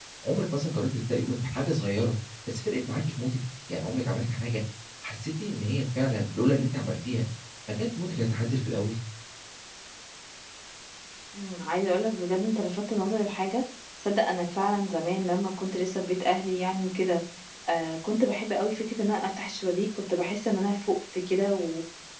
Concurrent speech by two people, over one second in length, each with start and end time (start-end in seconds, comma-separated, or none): none